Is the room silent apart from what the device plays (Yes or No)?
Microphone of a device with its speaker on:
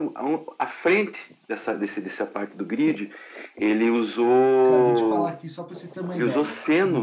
No